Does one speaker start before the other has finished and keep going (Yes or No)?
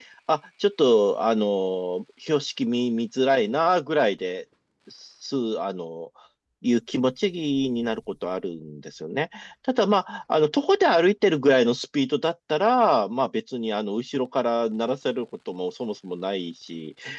No